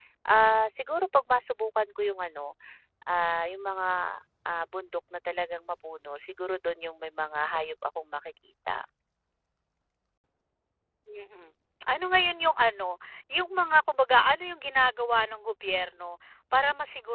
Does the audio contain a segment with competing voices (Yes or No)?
No